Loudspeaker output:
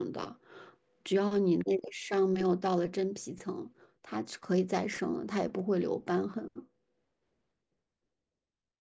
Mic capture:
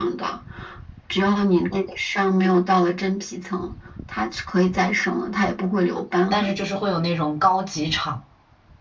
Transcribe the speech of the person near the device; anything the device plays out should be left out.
但是就是会有那种高级场。

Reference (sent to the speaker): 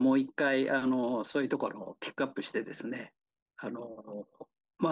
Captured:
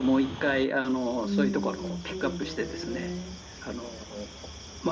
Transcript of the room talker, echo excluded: うーん、そうね。

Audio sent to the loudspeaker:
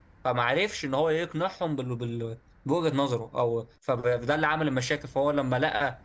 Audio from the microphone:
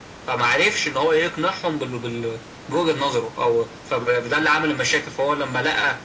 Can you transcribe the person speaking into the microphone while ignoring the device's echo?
none

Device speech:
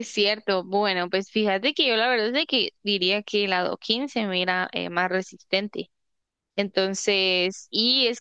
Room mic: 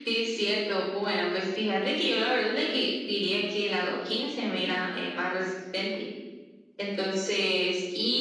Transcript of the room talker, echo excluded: none

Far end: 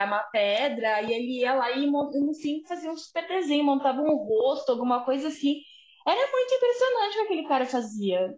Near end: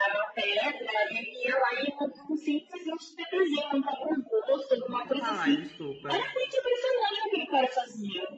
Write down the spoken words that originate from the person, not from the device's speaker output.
pode falar, desculpa.

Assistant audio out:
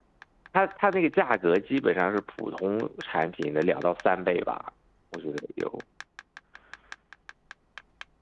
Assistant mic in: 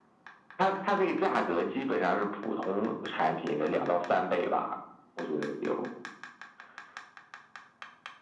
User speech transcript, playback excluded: none

